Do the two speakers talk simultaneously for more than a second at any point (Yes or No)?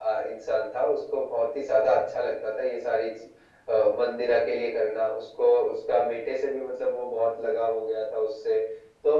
No